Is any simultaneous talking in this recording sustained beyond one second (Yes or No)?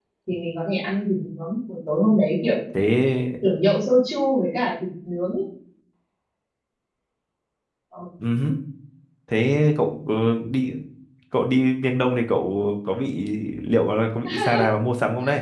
No